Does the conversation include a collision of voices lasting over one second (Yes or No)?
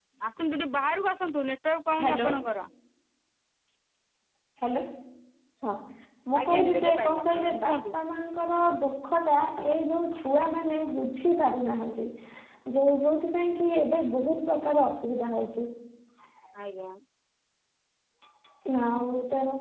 Yes